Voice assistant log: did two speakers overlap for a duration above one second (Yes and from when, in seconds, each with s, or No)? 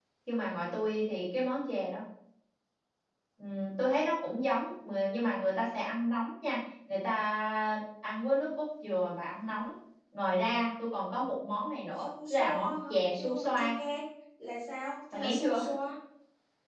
Yes, from 12.0 s